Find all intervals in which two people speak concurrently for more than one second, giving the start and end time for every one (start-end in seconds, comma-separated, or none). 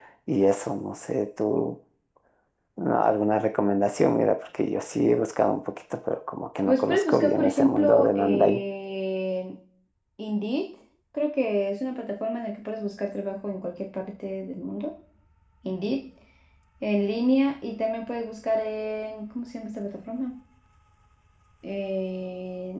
6.7-8.6